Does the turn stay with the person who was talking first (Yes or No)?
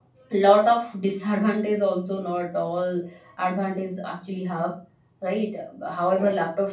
Yes